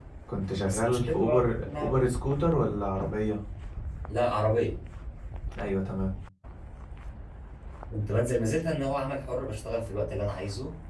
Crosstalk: present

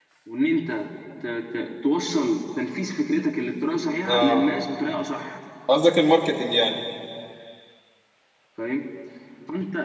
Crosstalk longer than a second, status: none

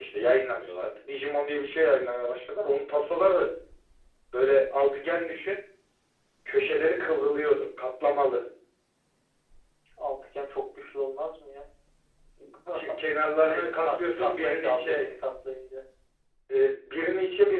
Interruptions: present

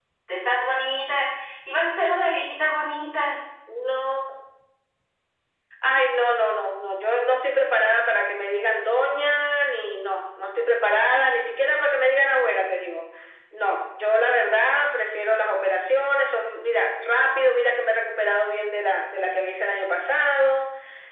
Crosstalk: none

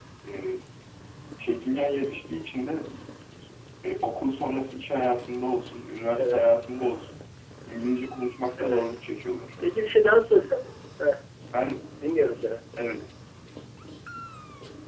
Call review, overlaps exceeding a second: none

